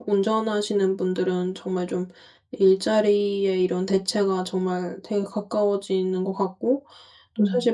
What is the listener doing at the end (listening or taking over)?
listening